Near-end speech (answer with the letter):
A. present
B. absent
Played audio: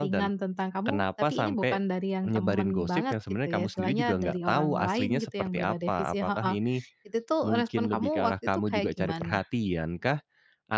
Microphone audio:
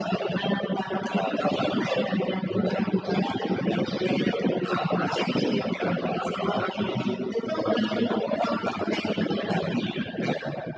B